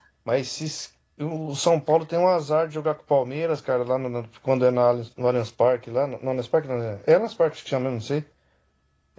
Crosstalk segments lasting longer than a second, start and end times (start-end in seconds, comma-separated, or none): none